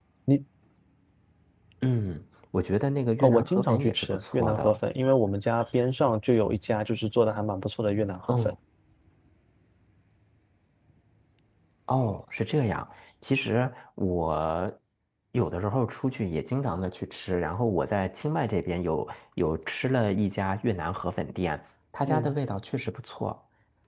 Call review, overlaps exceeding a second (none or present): present